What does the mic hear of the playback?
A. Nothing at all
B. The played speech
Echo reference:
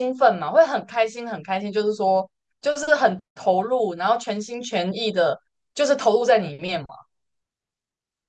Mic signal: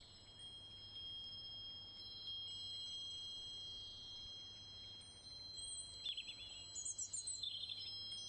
A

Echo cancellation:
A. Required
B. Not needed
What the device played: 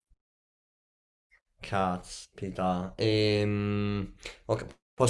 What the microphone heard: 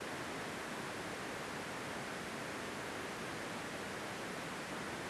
B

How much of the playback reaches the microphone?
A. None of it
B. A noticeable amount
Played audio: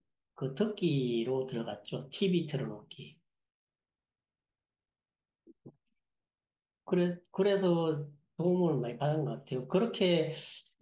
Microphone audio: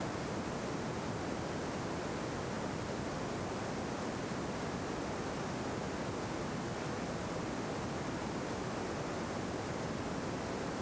A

